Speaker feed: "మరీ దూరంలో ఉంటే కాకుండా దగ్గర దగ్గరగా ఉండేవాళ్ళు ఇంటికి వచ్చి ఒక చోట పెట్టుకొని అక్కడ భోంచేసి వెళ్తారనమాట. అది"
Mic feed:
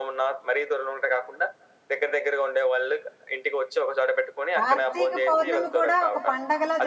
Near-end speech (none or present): present